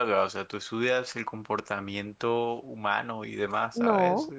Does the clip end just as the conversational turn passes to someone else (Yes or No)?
Yes